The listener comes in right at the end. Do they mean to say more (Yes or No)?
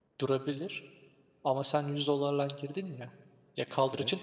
No